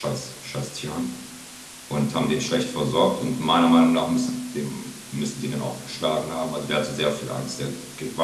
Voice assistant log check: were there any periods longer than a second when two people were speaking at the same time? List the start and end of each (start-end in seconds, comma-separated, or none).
none